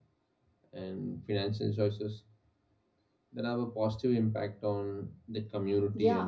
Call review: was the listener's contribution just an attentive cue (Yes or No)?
No